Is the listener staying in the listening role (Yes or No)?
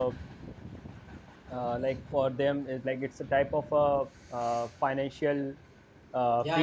No